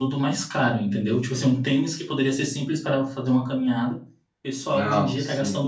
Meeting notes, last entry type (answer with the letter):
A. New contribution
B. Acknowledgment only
B